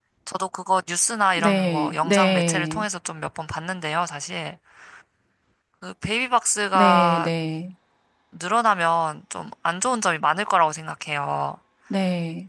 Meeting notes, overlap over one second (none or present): present